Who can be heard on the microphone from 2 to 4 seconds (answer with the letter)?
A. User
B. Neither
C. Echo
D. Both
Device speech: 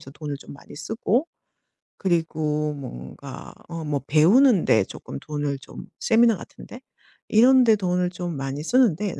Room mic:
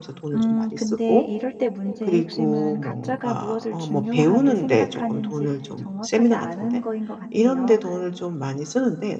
D